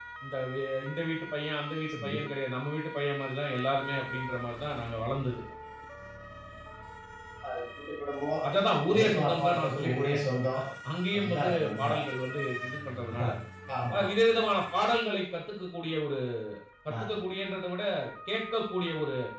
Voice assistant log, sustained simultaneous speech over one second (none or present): present